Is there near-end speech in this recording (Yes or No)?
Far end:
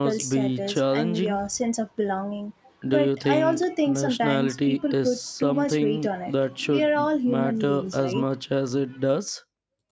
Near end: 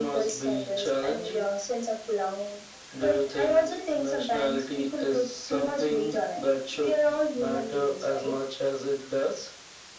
No